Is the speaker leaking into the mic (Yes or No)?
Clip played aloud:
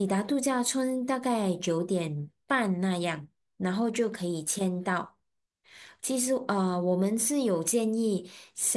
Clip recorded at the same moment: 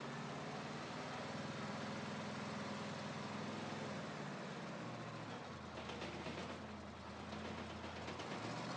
No